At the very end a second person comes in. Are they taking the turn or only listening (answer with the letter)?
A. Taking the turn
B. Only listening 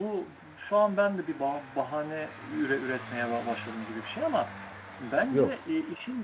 B